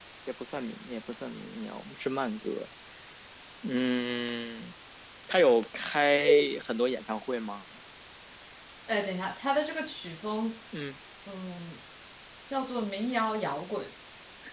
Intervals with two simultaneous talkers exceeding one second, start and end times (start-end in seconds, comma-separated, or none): none